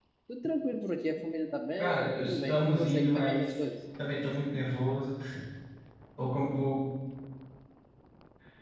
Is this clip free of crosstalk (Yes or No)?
No